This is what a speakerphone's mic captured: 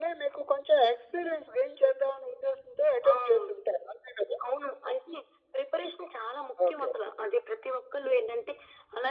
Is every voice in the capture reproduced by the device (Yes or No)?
Yes